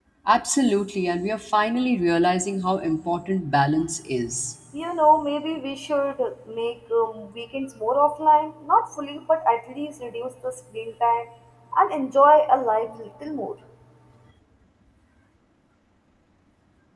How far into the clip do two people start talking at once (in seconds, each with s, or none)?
none